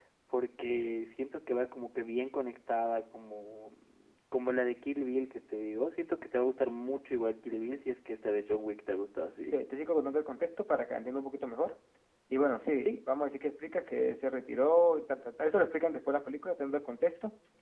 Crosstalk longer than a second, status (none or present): none